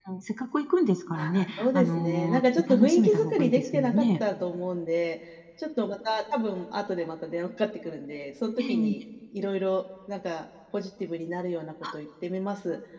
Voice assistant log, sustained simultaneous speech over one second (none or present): present